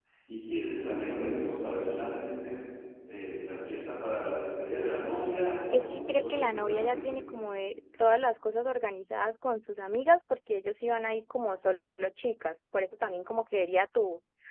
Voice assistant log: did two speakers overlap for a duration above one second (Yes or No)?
Yes